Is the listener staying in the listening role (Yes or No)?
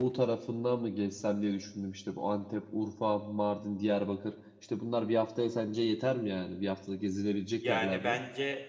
No